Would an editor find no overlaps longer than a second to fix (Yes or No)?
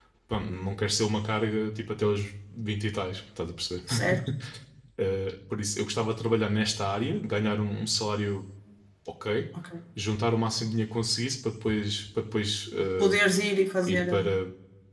Yes